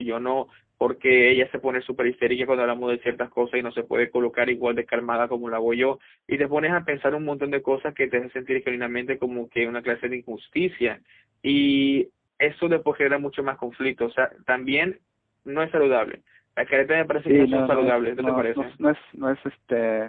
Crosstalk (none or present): present